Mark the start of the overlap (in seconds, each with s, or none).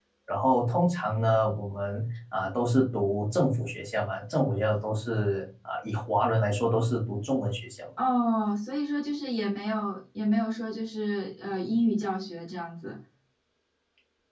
none